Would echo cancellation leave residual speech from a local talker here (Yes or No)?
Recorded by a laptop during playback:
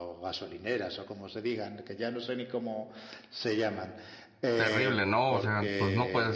Yes